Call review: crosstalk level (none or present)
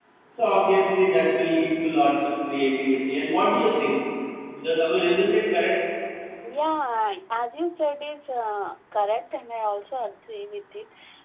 none